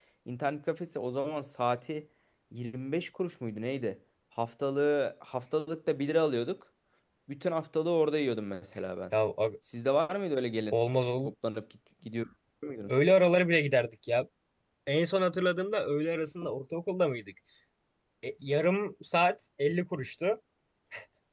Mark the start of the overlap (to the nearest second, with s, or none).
none